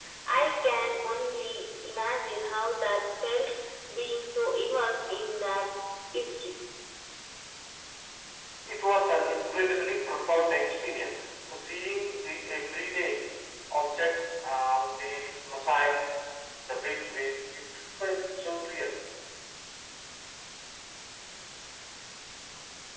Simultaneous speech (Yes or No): No